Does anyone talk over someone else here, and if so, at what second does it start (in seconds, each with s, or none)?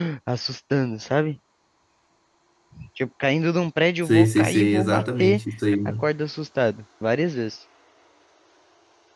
4.0 s